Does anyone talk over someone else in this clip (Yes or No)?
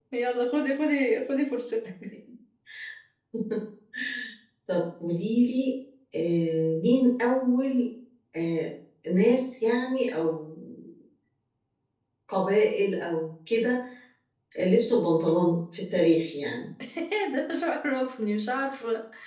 No